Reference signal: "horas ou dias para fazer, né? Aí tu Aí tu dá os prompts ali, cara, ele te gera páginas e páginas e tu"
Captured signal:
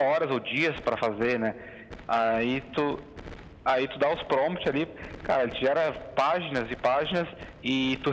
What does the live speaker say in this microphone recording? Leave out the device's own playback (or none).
none